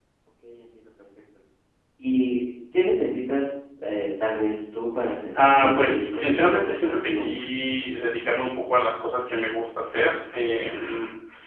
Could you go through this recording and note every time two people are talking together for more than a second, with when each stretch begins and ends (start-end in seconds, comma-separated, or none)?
5.3-7.5